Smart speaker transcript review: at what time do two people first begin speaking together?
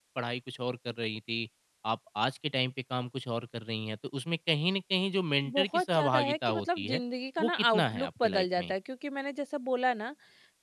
5.5 s

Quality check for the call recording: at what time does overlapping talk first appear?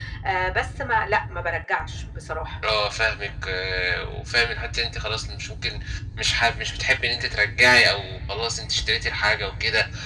none

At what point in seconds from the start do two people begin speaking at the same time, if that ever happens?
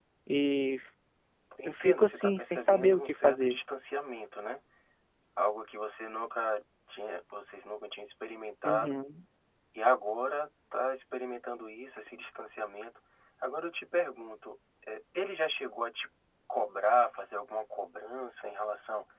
1.6 s

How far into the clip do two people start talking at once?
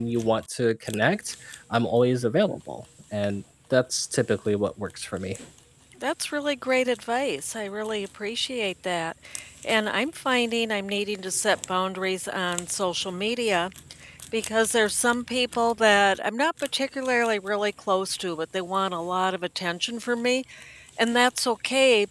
none

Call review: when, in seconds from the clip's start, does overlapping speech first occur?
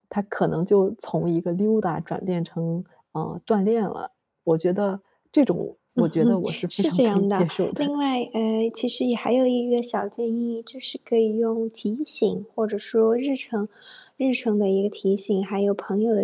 6.0 s

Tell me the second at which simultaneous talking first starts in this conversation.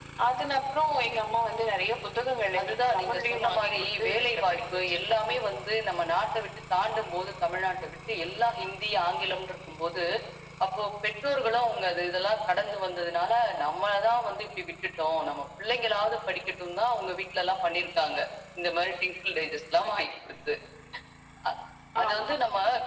2.6 s

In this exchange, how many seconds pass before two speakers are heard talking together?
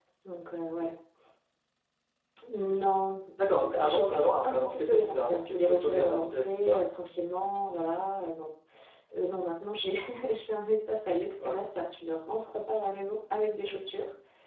3.6 s

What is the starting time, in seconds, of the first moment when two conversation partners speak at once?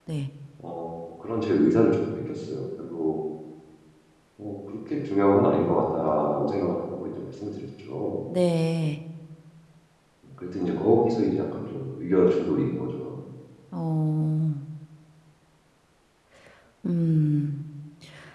none

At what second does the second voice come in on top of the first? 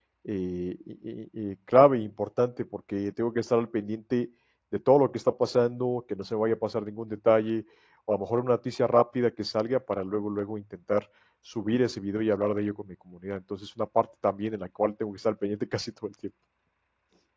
none

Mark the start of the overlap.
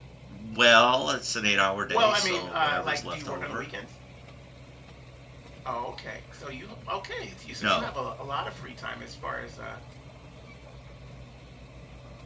1.9 s

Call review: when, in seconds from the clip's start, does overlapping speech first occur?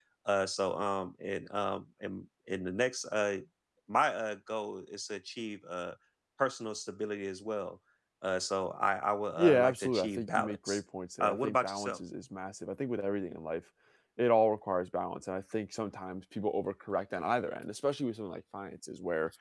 9.4 s

